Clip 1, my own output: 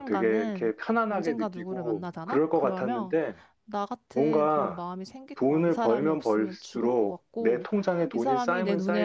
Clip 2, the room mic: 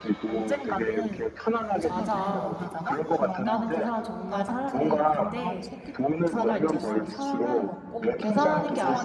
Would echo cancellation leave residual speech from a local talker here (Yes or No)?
Yes